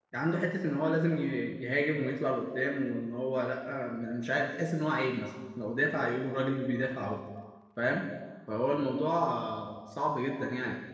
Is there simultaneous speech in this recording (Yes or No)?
No